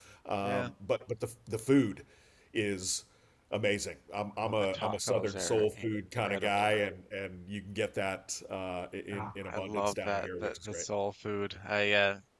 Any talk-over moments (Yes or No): Yes